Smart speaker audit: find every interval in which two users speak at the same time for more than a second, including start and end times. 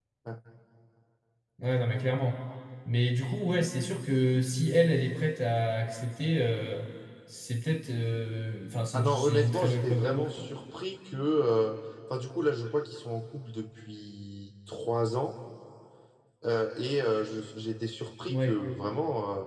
8.9-10.5

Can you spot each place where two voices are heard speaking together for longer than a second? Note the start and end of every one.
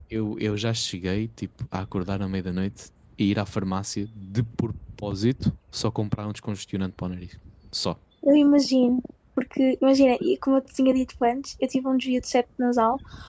none

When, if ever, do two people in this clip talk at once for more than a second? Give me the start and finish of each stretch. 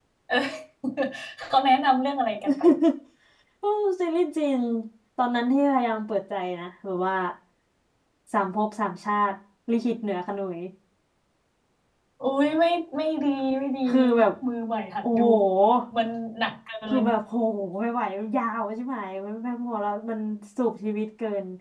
none

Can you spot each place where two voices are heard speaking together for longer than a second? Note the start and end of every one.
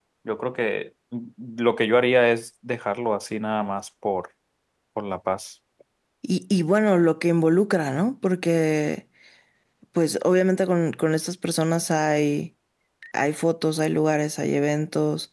none

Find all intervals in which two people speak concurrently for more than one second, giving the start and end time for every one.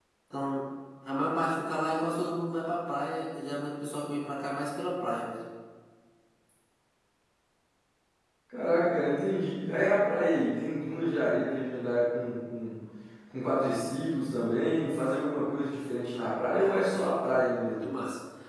16.6-17.9

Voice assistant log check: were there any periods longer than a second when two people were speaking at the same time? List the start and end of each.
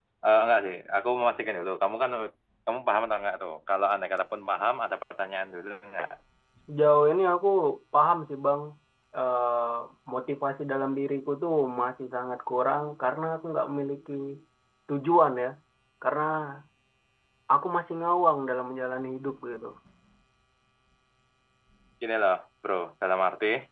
none

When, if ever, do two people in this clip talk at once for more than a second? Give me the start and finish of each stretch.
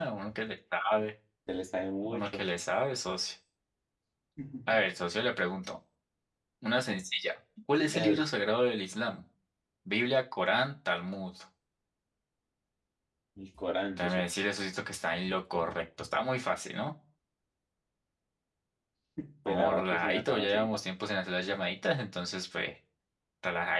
19.4-20.8

